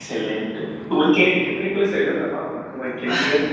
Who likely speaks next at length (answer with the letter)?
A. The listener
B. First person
A